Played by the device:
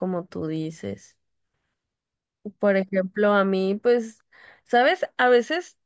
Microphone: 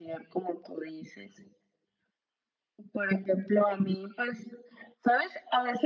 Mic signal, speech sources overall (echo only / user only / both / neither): echo only